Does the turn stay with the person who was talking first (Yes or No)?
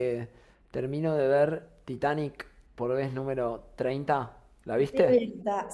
No